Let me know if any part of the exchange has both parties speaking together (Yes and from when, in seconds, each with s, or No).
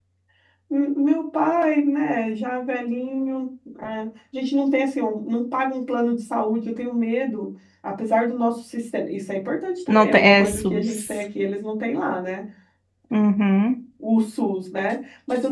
Yes, from 9.9 s